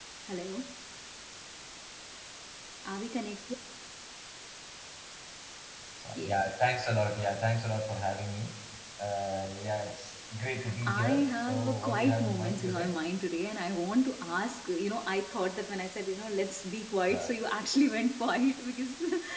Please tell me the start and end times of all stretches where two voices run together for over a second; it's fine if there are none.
10.8-13.0

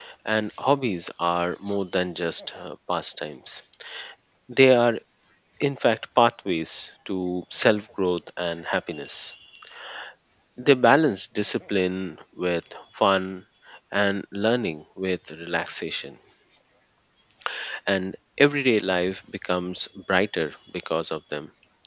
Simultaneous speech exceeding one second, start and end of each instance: none

